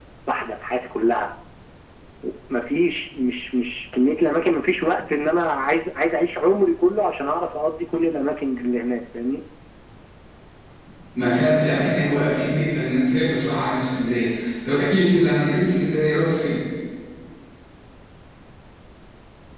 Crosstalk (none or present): none